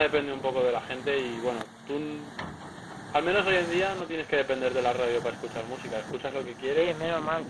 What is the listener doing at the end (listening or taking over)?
taking over